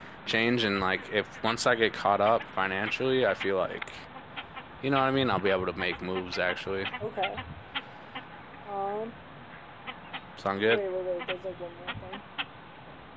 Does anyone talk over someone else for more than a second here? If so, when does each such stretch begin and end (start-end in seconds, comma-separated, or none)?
none